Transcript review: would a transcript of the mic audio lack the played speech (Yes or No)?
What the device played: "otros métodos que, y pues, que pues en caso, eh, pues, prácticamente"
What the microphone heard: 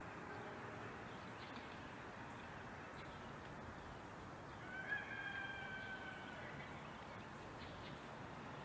Yes